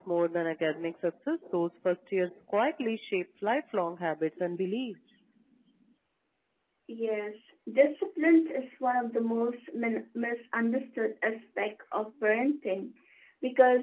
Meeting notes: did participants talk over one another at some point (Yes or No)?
No